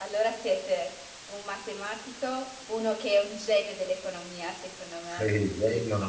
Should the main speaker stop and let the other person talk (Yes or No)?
Yes